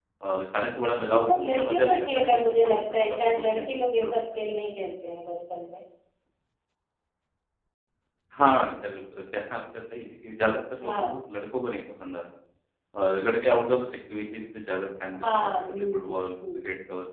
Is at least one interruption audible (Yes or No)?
Yes